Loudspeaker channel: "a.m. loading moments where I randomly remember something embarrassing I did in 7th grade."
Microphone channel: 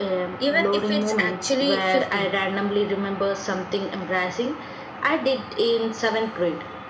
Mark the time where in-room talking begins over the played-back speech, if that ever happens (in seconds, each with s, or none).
0.4 s